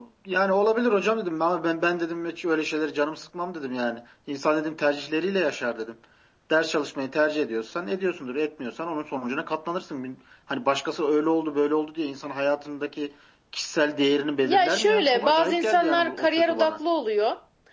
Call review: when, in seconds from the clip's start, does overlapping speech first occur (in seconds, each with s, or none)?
14.4 s